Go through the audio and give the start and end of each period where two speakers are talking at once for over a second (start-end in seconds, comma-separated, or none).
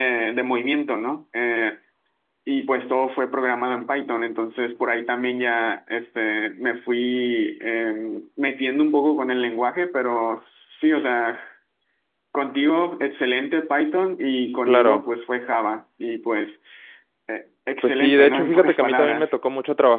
17.8-19.3